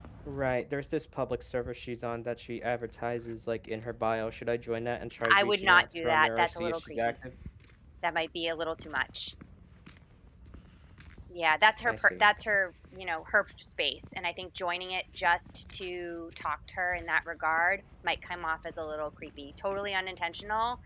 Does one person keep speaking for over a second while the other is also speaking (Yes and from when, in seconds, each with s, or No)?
Yes, from 5.3 s